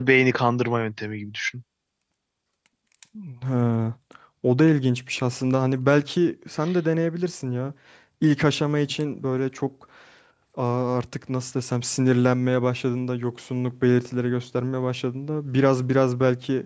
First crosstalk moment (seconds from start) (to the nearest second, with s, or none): none